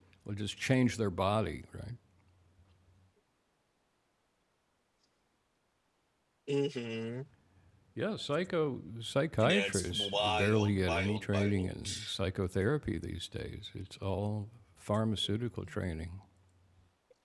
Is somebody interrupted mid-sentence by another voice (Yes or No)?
Yes